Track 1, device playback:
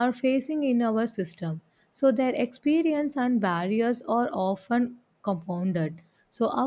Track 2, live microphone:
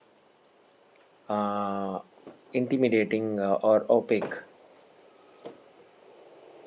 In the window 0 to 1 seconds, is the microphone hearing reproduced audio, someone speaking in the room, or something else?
neither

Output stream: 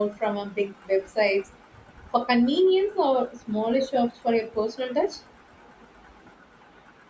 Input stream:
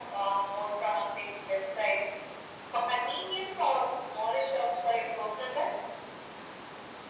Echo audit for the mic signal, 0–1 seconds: echo only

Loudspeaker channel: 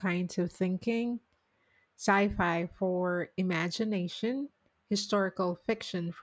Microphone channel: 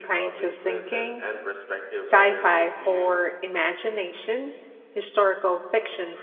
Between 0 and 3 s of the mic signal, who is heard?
both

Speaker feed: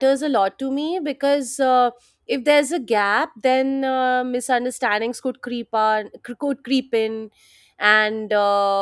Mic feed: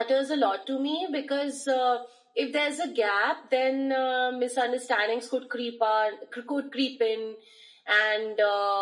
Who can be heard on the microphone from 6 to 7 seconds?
echo only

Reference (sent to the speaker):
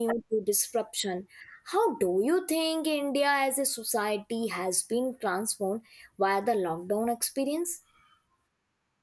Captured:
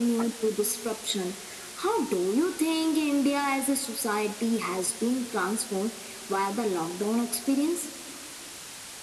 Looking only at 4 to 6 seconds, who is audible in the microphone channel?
echo only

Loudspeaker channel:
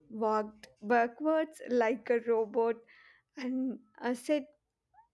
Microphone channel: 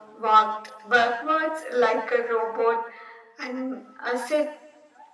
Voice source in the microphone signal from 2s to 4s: echo only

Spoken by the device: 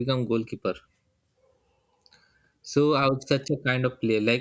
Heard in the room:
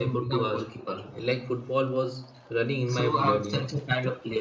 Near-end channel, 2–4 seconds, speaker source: both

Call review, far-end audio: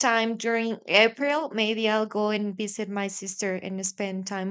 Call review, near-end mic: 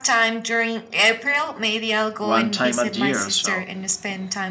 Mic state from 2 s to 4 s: both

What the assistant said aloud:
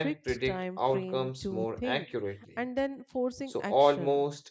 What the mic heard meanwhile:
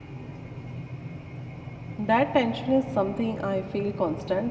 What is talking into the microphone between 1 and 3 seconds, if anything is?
user only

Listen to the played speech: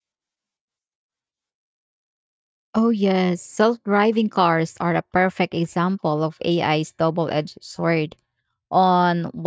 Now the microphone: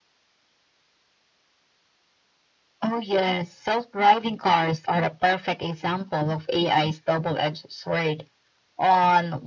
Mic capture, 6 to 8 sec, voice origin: echo only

